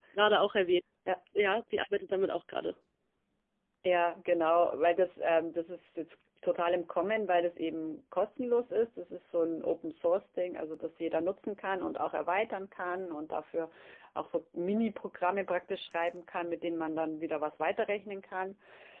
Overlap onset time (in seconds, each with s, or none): none